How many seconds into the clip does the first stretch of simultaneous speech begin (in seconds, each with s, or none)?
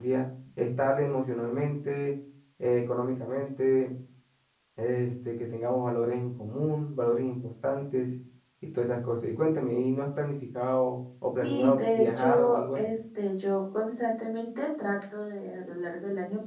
11.4 s